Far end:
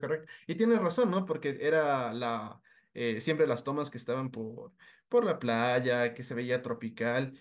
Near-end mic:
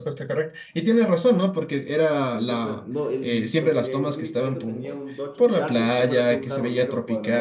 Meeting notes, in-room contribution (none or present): present